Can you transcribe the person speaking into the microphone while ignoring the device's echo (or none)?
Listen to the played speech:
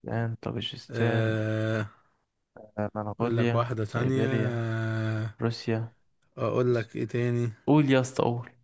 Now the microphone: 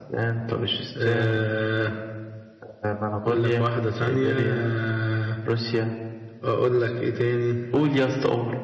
none